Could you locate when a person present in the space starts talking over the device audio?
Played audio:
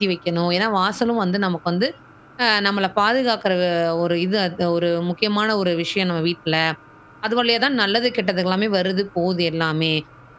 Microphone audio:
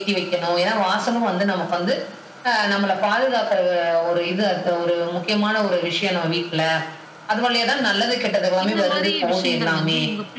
8.6 s

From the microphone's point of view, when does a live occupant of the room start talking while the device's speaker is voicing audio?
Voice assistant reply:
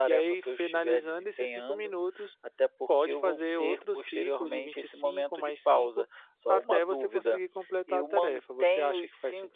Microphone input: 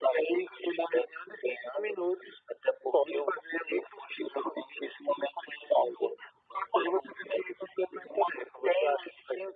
none

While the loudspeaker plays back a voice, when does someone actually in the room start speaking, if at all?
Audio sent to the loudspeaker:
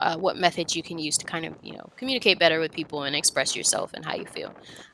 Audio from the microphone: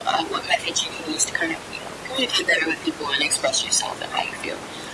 none

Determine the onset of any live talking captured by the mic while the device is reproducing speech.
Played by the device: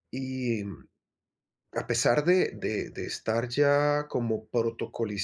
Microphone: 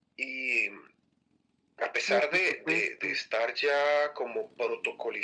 2.0 s

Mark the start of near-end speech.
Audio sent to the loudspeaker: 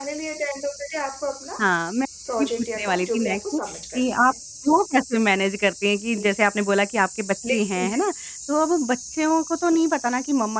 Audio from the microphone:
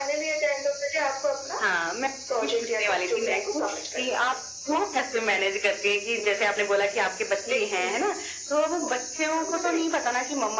8.8 s

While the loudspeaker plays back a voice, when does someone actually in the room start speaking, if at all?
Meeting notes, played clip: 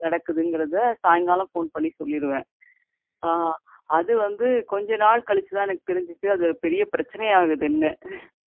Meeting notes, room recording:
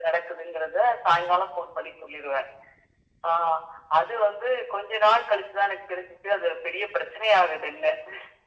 none

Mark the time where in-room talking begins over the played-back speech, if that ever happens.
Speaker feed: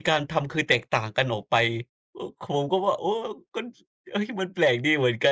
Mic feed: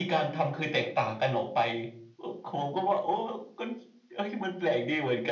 none

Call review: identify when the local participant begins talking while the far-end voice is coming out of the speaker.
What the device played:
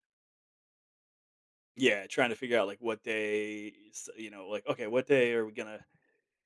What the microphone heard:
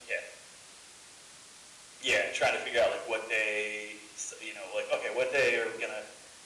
none

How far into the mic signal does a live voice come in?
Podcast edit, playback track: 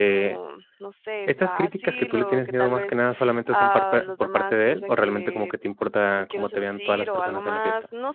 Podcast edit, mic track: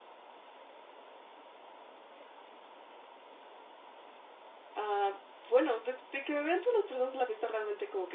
4.8 s

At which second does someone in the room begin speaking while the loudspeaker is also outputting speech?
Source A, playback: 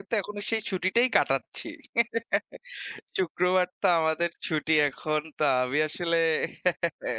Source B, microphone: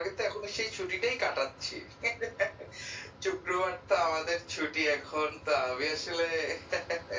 none

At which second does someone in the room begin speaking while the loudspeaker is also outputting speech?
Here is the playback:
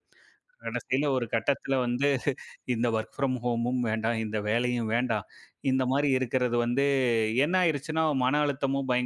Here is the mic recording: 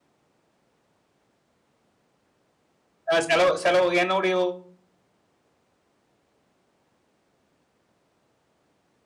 3.1 s

